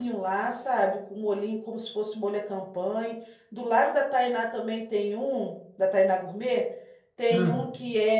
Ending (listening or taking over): listening